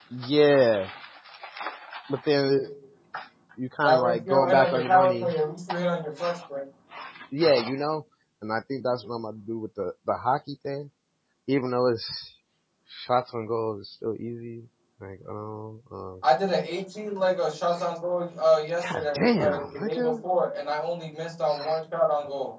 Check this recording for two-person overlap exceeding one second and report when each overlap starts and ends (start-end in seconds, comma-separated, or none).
3.8-5.3, 18.9-20.1